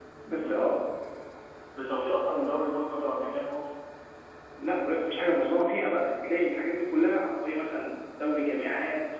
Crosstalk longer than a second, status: none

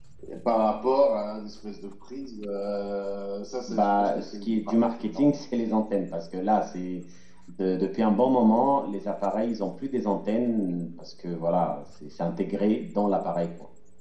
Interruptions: present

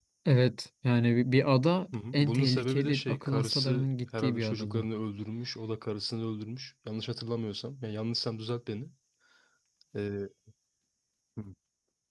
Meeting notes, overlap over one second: present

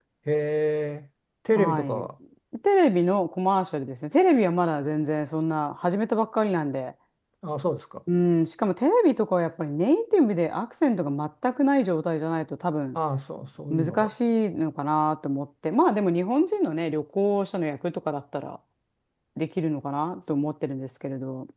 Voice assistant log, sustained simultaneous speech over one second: none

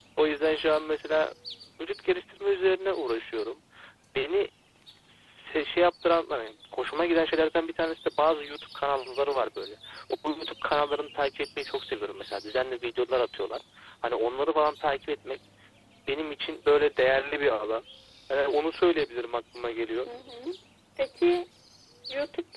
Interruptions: none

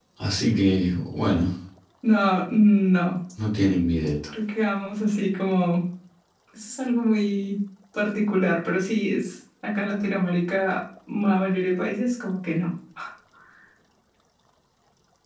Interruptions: none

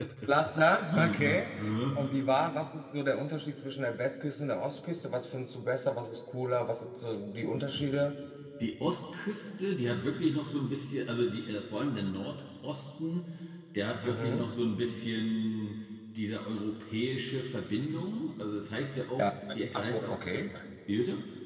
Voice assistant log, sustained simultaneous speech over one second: none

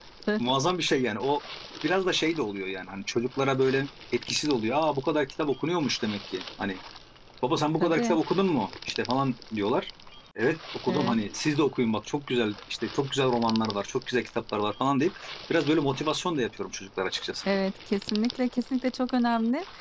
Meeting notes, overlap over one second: none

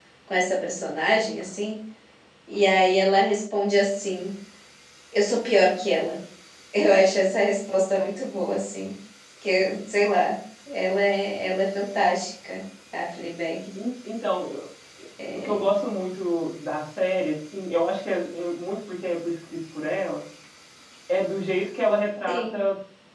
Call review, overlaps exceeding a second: none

